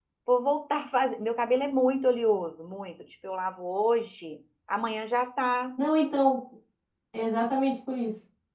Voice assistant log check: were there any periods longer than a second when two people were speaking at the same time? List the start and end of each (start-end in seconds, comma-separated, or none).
none